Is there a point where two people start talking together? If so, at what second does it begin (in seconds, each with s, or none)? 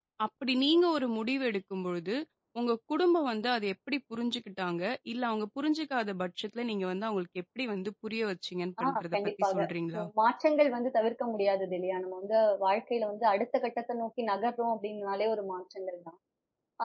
8.8 s